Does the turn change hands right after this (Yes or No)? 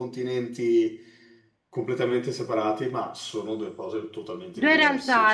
Yes